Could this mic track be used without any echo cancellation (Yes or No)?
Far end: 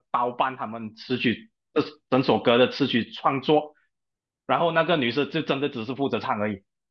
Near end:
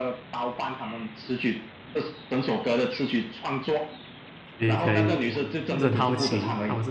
No